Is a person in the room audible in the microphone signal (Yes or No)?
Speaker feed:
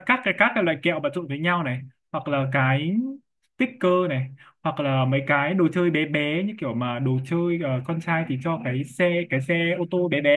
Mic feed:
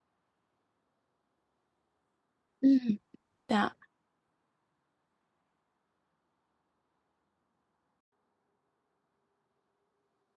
Yes